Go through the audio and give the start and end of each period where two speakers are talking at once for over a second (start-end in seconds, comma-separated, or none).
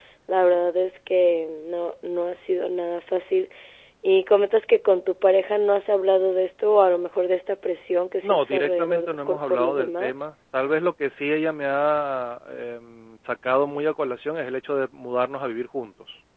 8.2-10.1